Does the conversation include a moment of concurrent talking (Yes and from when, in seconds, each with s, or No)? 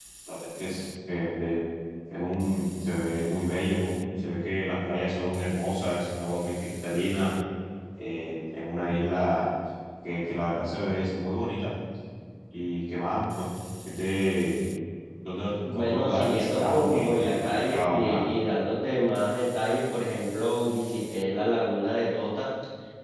Yes, from 15.6 s